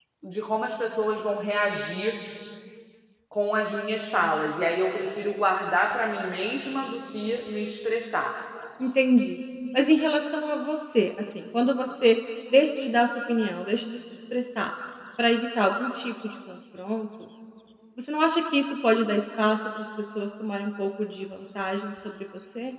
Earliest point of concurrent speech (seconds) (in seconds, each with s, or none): none